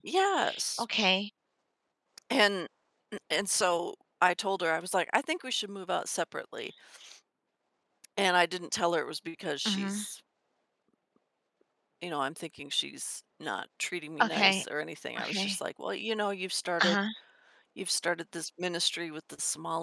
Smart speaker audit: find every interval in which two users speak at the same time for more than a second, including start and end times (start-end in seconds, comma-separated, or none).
none